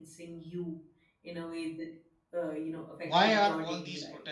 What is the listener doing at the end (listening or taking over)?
taking over